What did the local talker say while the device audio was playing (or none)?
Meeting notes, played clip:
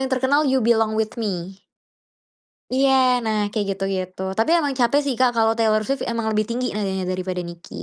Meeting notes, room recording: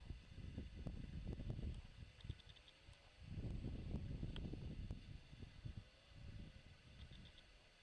none